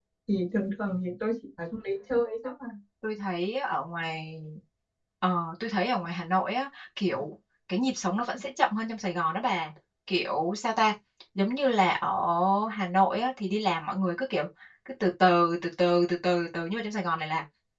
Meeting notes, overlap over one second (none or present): none